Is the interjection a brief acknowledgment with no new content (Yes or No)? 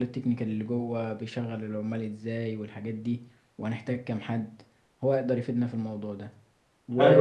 Yes